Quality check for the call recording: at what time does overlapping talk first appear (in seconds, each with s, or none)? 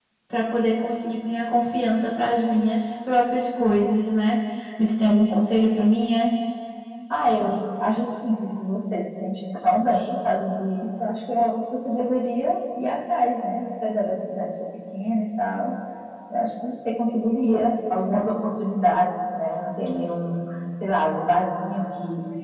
none